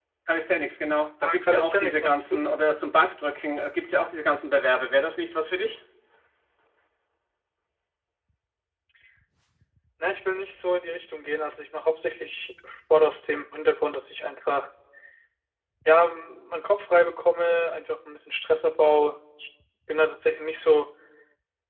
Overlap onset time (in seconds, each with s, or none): 1.2 s